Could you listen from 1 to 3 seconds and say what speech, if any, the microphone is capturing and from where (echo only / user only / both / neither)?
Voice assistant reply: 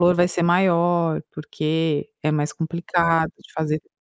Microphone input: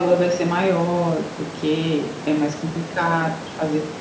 echo only